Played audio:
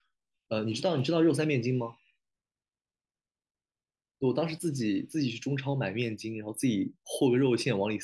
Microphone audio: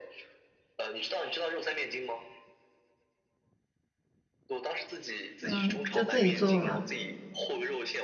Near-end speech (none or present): present